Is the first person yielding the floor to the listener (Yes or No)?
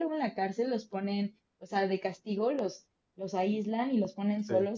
No